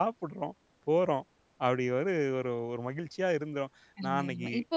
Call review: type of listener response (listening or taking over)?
taking over